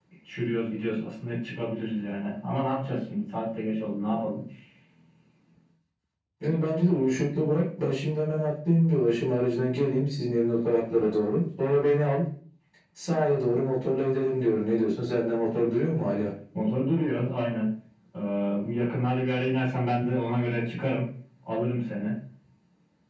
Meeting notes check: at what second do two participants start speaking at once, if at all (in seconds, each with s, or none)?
none